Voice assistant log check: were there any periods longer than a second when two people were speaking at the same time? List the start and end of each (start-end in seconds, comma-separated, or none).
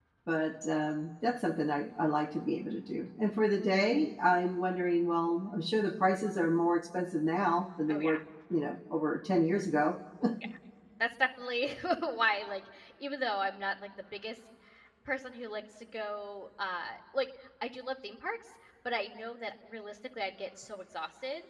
none